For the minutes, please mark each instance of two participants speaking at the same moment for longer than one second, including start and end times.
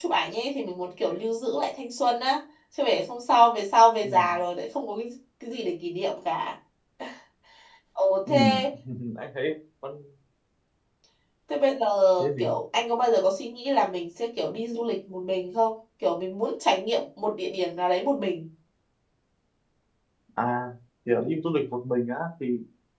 none

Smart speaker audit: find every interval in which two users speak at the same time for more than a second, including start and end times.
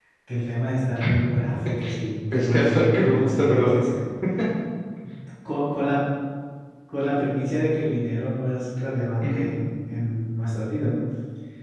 2.3-3.7

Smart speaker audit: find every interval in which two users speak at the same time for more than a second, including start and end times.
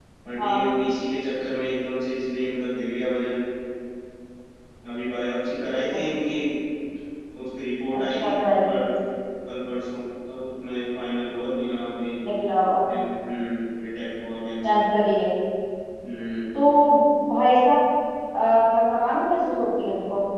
none

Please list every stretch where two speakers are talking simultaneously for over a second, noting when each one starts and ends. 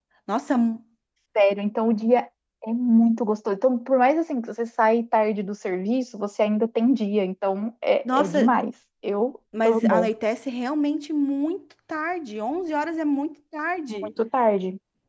none

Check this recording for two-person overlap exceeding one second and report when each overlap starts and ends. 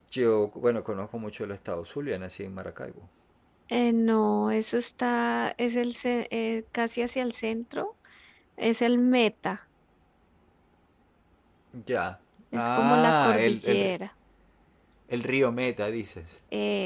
12.5-13.9

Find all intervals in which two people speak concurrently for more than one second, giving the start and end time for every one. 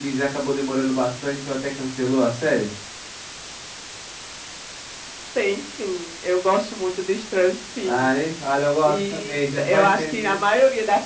8.8-10.4

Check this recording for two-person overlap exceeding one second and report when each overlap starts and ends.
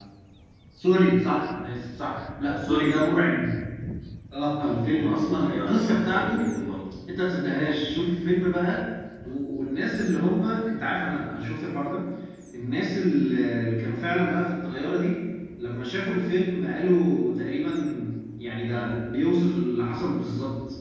4.8-6.5

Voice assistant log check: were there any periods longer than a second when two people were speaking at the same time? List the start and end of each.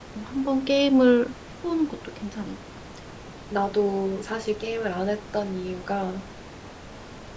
none

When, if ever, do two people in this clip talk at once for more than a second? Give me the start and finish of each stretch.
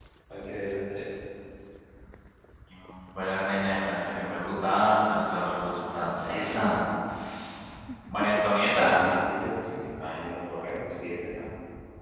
none

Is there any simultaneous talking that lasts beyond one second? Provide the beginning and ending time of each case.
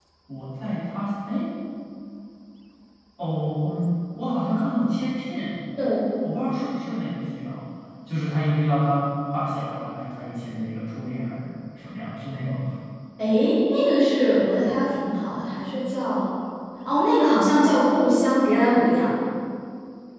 none

